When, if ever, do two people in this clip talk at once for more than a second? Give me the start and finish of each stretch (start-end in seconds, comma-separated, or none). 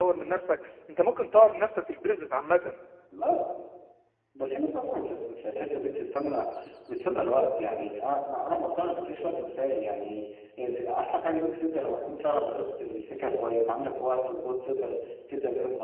none